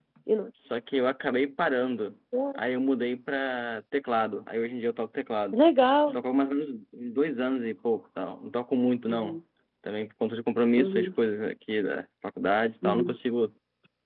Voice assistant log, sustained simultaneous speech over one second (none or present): none